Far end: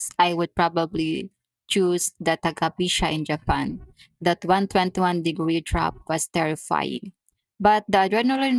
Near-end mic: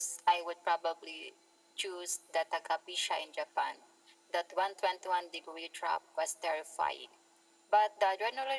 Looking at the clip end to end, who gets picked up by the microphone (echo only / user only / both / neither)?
echo only